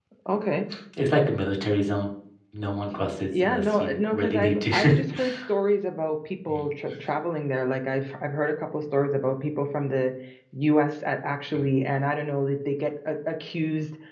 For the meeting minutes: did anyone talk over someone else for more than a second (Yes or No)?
Yes